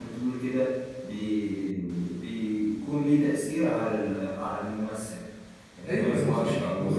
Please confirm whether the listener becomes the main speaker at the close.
Yes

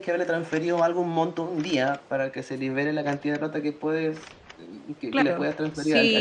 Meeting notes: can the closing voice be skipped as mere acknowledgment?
No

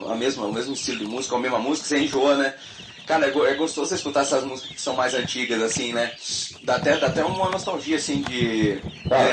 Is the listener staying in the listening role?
Yes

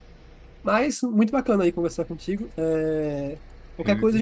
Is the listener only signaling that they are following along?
Yes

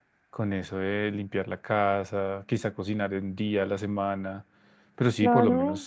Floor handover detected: Yes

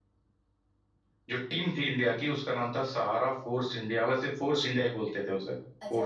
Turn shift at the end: Yes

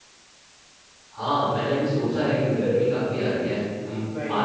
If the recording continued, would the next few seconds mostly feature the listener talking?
No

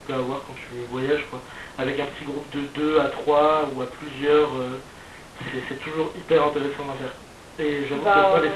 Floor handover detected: No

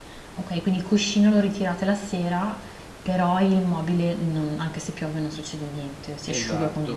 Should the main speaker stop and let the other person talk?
Yes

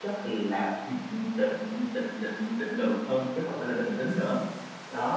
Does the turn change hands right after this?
Yes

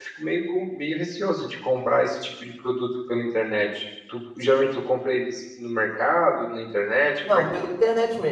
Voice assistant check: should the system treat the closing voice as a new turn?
Yes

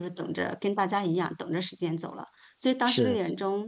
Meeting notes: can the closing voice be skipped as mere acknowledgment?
Yes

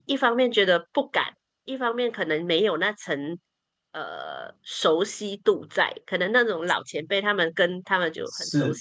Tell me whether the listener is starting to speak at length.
No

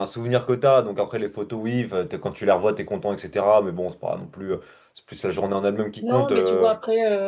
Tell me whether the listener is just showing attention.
No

